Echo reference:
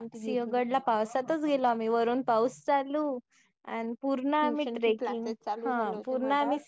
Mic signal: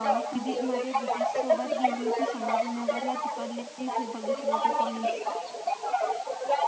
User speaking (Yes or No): Yes